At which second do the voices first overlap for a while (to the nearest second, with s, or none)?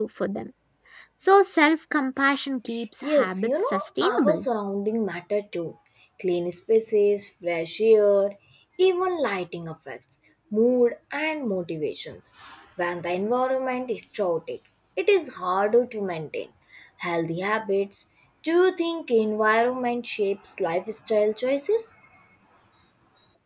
3 s